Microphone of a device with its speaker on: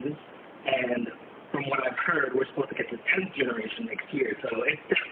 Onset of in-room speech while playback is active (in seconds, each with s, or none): none